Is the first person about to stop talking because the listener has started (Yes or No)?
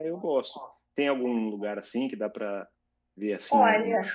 No